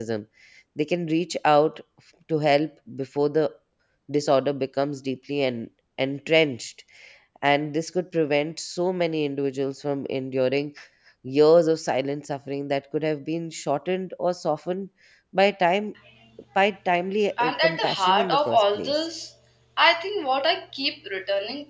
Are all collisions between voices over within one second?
No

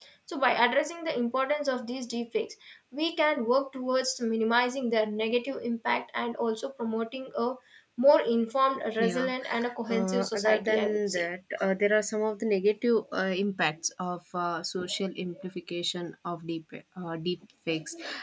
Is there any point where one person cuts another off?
Yes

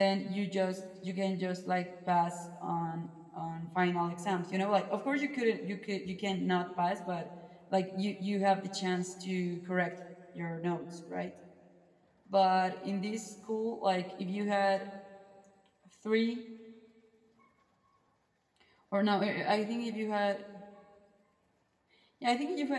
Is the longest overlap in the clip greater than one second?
No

